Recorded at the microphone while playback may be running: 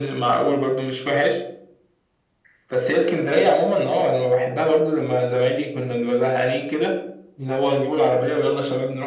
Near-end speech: none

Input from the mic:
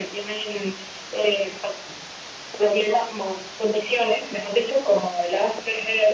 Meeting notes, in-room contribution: none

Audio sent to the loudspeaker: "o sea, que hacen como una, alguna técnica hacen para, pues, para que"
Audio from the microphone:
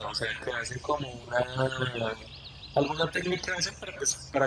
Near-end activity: none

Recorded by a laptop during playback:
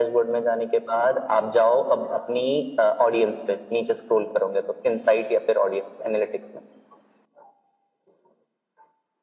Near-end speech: none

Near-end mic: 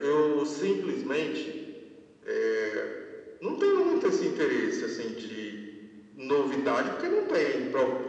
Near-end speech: none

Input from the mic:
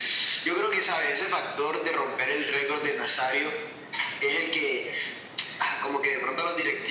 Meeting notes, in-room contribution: none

